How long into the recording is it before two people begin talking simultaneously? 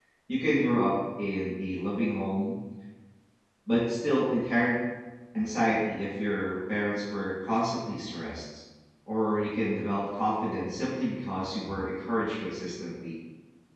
none

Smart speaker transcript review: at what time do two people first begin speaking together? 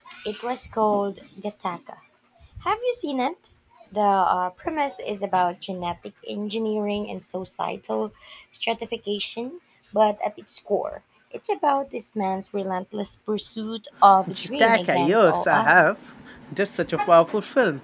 14 s

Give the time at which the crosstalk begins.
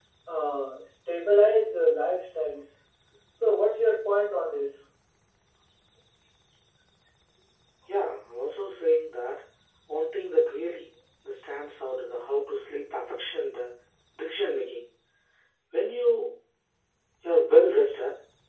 none

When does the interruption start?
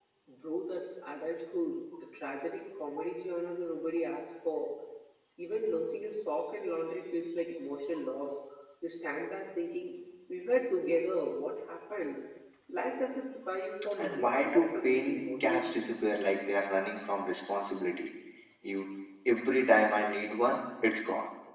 14 s

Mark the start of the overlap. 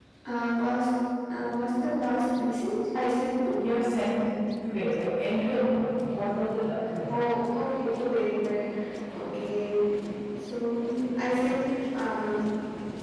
none

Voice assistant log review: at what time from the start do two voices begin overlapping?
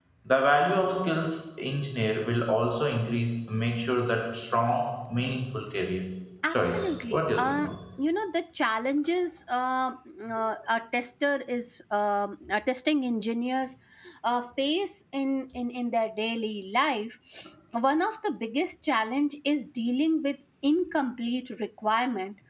7 s

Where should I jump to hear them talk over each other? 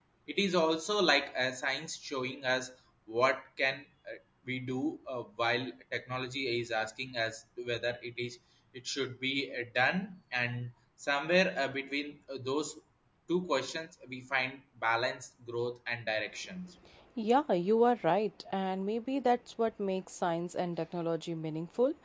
none

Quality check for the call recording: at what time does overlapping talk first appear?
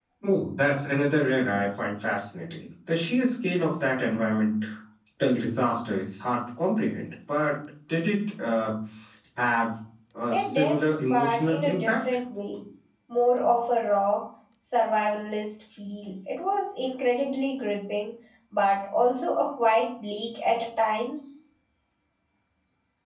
10 s

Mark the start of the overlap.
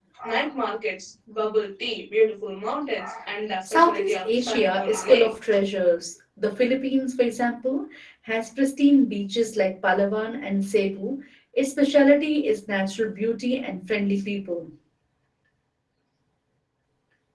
4 s

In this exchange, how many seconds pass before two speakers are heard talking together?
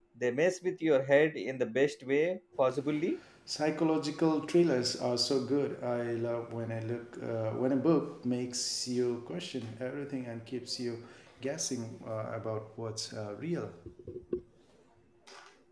none

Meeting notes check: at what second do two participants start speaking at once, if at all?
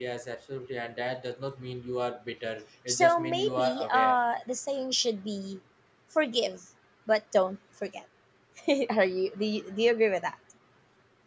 3 s

